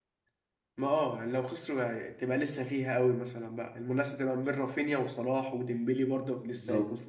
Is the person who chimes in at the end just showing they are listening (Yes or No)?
No